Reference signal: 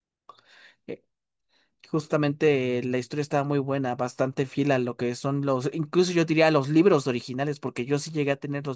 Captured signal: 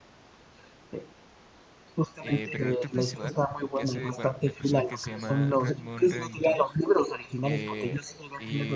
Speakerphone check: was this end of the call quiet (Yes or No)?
No